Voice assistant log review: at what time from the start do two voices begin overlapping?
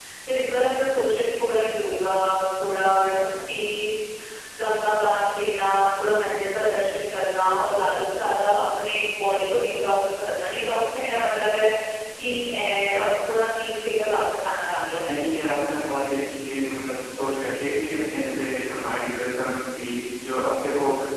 none

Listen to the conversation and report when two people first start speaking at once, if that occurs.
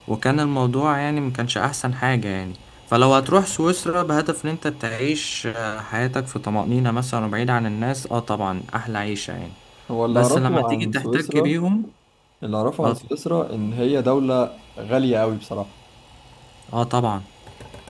10 s

